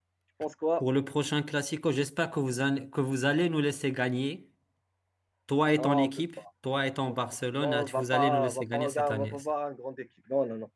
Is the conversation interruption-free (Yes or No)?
No